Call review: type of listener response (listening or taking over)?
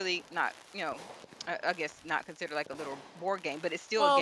taking over